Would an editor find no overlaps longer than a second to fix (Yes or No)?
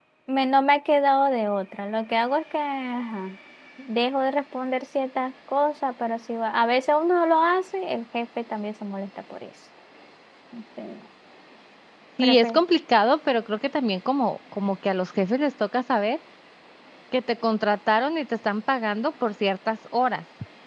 Yes